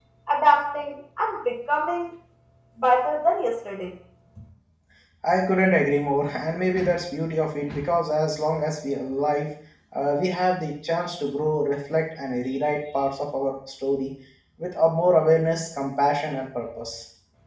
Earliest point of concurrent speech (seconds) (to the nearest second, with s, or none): none